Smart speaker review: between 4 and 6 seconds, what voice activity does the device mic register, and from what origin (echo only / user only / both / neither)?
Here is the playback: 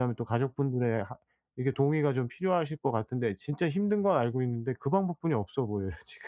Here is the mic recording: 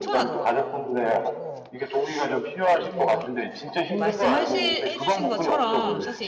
both